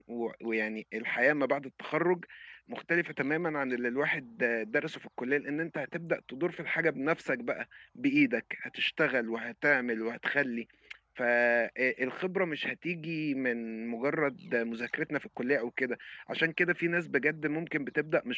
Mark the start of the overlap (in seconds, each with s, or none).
none